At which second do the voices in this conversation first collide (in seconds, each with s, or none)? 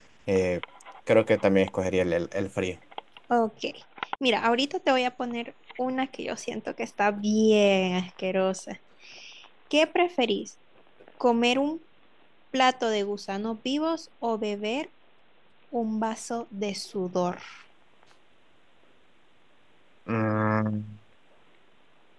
none